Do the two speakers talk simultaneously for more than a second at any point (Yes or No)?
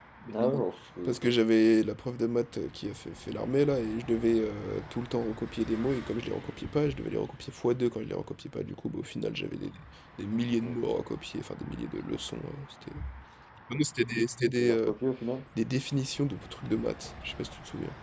No